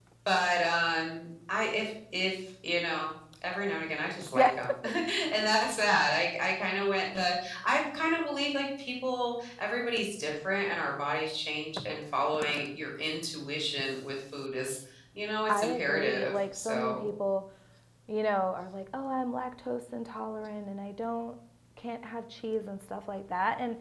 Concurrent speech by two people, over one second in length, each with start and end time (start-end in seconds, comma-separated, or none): 15.5-17.1